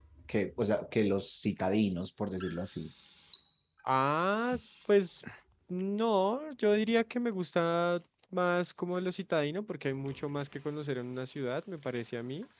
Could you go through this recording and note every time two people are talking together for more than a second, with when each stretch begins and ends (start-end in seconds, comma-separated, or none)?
none